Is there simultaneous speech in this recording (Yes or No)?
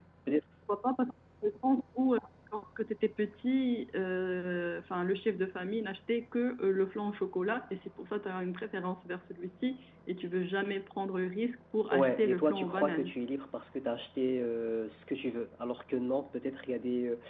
Yes